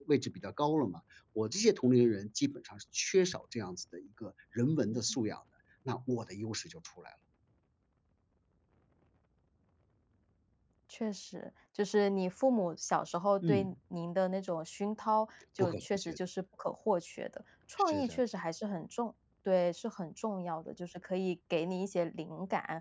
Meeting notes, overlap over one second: none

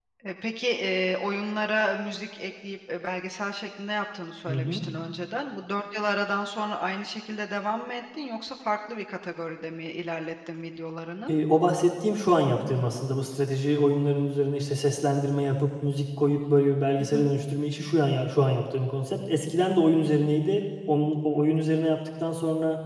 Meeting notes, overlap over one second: none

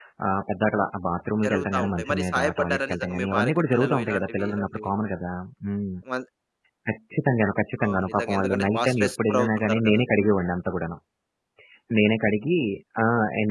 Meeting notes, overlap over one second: present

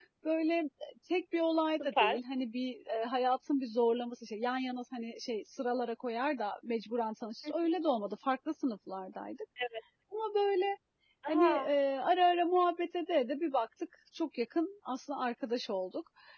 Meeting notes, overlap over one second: none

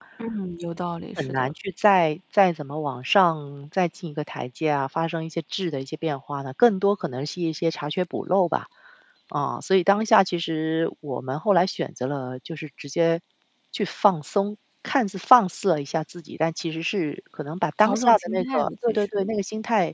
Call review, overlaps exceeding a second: present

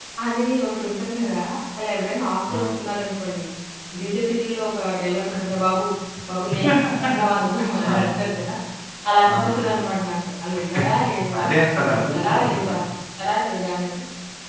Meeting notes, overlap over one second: present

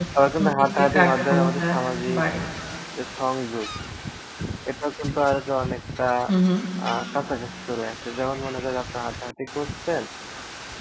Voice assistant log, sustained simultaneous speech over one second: present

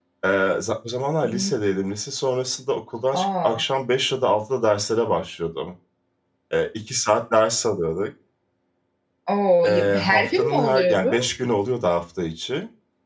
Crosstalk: present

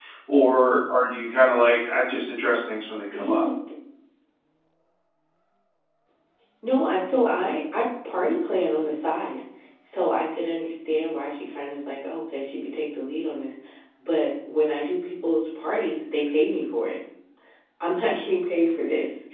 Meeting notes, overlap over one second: none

